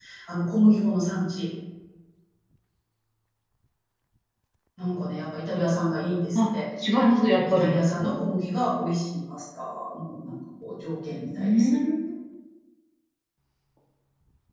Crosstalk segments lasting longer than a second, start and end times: none

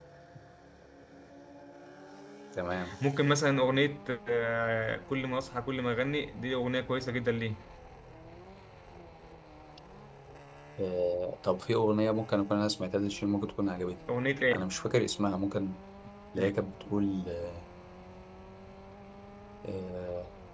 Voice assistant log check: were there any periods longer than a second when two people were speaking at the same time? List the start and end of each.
none

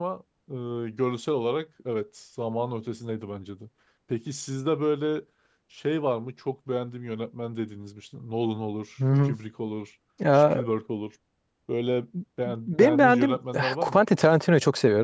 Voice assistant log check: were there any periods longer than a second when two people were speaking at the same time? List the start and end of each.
12.7-14.0

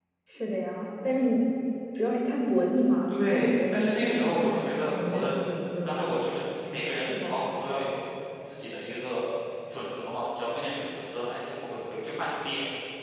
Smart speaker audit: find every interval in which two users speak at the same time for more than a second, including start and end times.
3.3-5.3

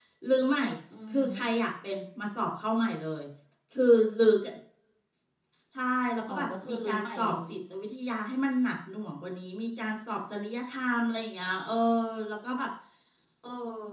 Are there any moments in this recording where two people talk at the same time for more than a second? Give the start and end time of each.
6.3-7.5

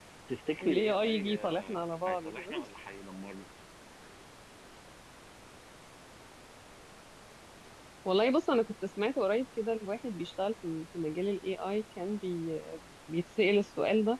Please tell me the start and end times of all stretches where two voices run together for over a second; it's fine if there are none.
0.6-2.6

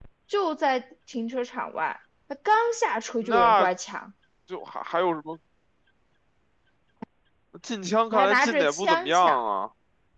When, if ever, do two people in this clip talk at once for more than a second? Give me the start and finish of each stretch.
8.1-9.4

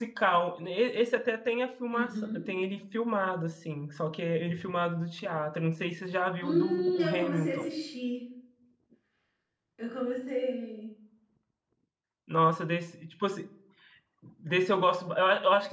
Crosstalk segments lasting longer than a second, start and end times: 6.4-7.7

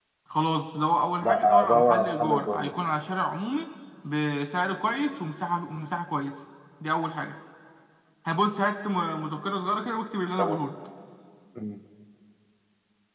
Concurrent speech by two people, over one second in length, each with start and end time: 1.2-2.8

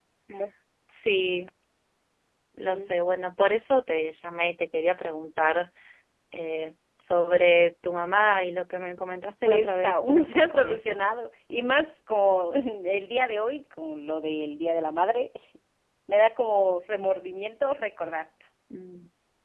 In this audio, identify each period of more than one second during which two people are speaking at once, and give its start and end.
9.4-11.0

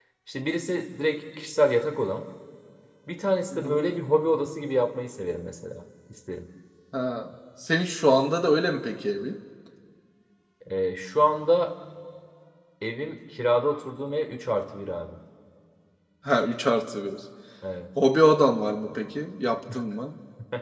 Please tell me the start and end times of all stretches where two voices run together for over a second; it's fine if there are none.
none

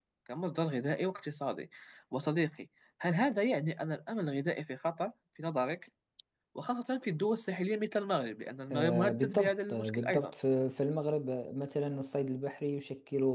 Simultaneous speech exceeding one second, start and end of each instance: 8.7-10.3

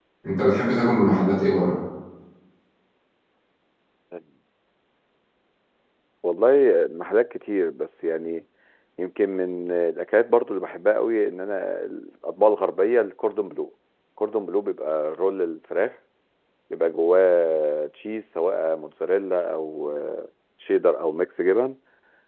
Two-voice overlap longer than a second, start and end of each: none

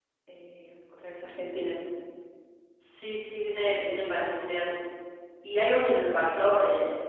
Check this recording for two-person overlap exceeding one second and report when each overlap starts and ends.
none

